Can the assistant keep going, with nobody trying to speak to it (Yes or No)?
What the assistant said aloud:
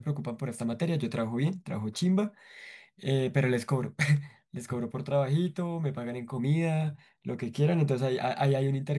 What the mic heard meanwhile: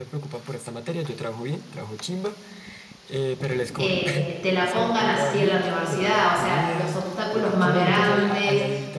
No